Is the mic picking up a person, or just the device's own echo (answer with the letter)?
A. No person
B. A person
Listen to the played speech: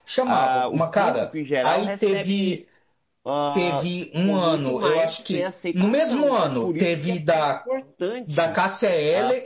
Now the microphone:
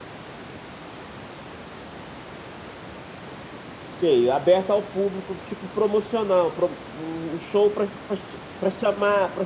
B